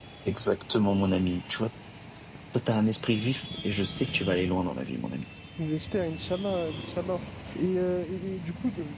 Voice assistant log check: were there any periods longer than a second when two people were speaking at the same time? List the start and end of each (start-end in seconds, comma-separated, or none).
none